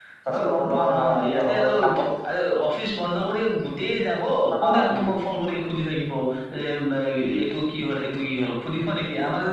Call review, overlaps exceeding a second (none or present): present